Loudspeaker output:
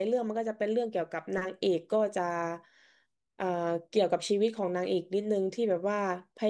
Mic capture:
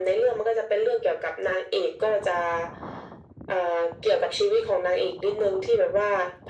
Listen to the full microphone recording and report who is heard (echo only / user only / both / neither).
echo only